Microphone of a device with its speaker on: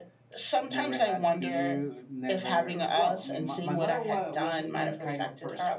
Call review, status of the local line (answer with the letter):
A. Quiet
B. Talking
A